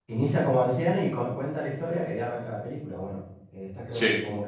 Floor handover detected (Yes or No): No